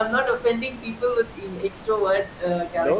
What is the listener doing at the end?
taking over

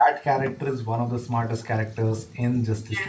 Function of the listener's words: taking over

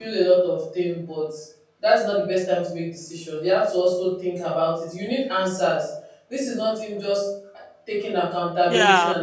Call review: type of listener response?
taking over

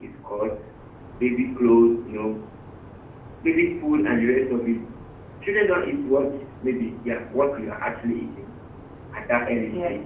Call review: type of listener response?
listening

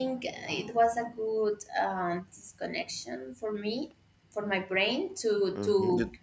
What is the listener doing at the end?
taking over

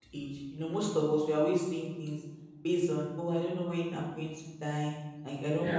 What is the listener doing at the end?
listening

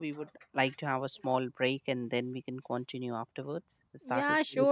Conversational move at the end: taking over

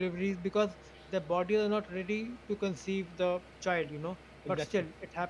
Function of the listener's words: listening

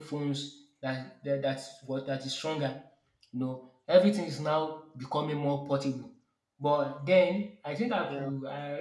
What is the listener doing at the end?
listening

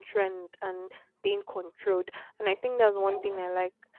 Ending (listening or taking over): listening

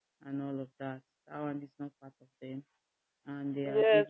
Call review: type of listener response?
taking over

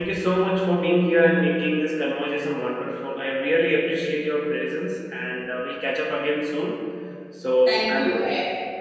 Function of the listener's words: taking over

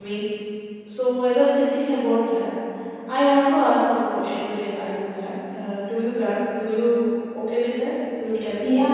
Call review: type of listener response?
taking over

